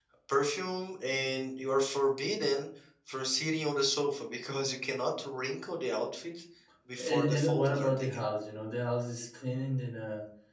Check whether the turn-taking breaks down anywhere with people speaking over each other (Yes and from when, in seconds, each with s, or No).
Yes, from 7.0 s